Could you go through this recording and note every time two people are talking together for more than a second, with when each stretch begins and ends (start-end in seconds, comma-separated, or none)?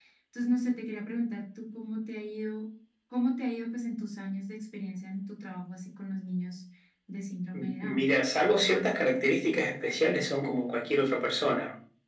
none